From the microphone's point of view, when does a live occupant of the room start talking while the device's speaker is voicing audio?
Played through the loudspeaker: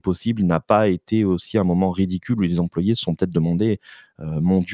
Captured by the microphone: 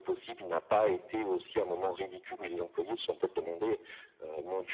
none

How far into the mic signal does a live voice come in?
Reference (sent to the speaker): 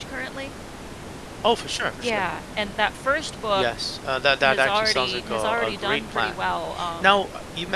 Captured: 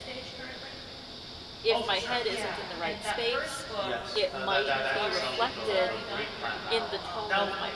1.6 s

